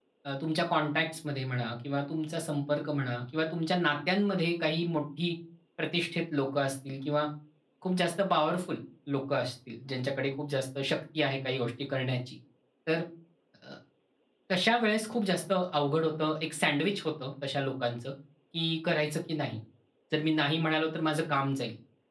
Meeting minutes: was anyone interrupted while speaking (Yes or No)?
No